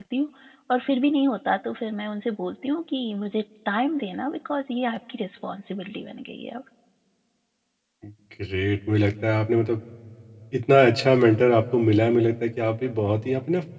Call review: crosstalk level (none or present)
none